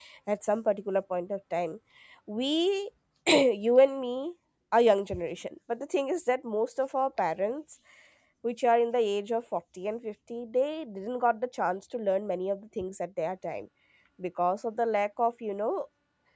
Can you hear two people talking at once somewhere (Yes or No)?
No